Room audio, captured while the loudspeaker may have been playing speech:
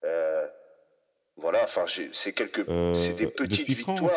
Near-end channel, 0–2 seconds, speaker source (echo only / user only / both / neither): echo only